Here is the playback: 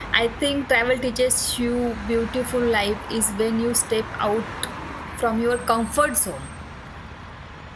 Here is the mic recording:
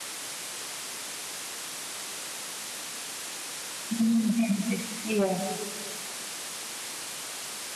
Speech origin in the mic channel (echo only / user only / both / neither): user only